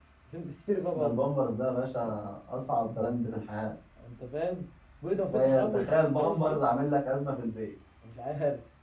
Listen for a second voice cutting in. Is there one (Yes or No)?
Yes